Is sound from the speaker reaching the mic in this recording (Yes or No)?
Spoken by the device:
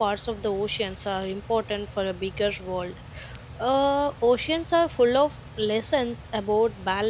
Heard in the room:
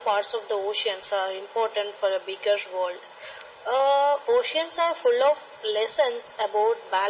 Yes